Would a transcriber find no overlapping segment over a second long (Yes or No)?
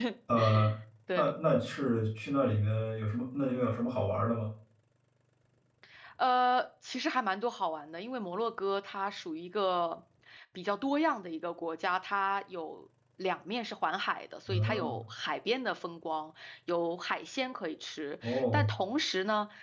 Yes